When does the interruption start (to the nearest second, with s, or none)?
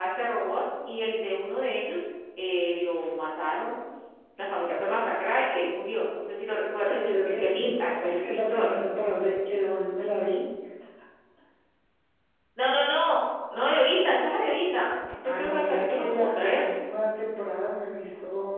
7 s